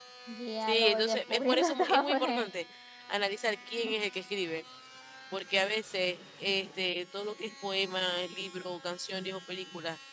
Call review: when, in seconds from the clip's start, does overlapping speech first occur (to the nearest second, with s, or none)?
1 s